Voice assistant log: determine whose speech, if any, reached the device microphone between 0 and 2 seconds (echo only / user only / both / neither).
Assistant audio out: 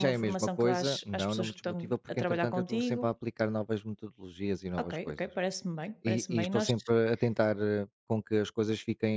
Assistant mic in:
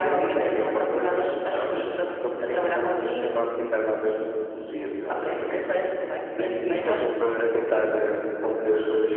echo only